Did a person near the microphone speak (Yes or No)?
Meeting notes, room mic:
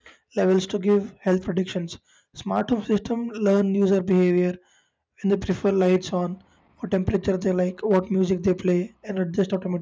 Yes